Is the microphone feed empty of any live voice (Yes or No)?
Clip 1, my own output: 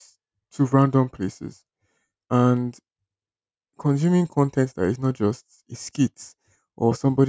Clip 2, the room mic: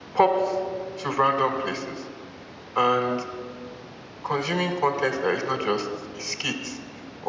Yes